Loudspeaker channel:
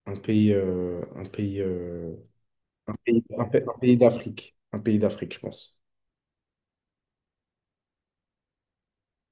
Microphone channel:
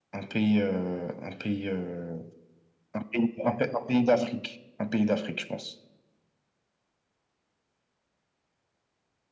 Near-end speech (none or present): none